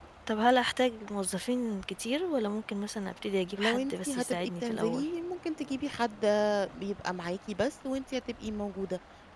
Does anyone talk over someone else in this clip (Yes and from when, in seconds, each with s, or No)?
Yes, from 3.6 s